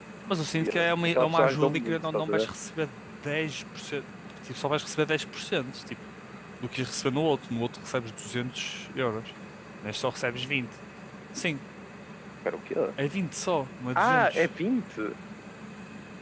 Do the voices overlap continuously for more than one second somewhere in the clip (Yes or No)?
Yes